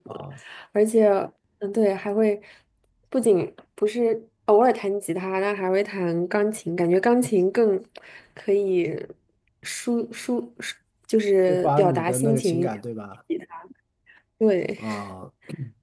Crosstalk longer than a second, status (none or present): present